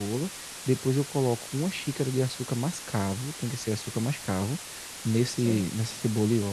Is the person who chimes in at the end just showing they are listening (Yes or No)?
Yes